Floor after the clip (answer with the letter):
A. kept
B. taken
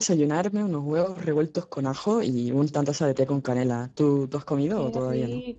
B